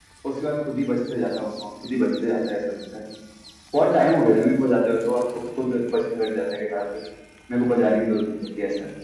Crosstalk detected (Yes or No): No